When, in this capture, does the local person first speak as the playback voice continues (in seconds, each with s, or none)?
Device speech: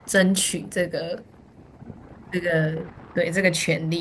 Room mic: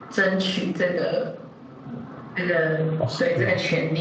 3.0 s